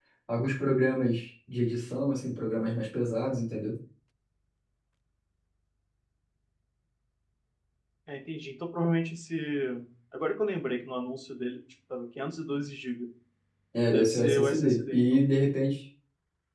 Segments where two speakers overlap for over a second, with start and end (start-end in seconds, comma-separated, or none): 13.9-15.2